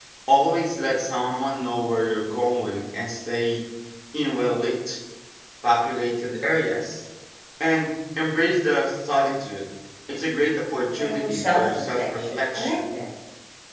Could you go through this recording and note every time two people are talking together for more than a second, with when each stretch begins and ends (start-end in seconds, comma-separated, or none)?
11.0-12.8